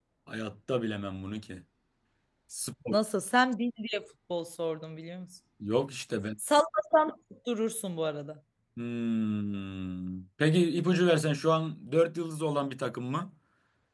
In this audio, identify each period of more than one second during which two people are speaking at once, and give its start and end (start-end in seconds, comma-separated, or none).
none